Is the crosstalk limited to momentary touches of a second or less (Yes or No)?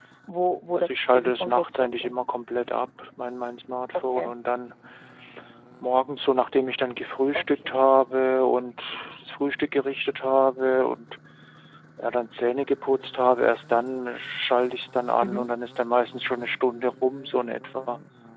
No